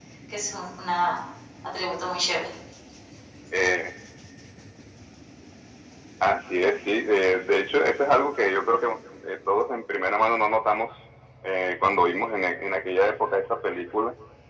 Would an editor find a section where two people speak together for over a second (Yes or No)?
No